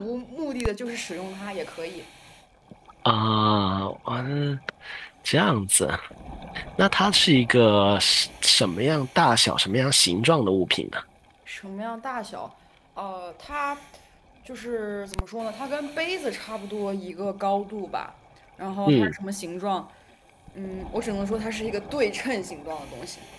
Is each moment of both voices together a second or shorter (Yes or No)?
Yes